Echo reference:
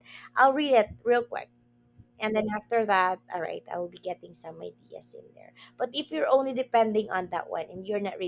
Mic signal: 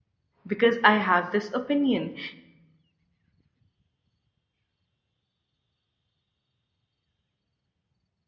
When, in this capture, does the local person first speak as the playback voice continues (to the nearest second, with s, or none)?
0 s